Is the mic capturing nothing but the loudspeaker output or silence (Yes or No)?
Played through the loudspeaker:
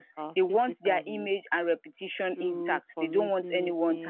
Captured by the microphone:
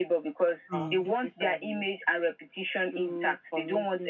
No